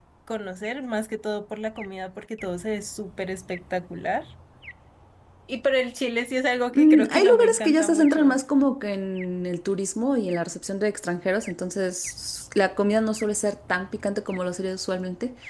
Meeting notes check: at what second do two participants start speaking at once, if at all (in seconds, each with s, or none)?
6.7 s